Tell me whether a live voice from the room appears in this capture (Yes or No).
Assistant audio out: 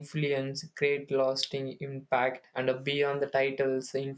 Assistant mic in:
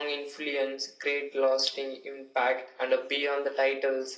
No